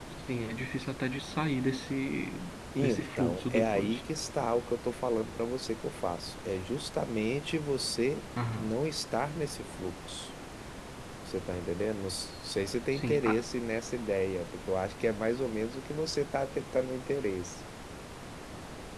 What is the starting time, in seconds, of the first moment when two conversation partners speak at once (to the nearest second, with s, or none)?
3 s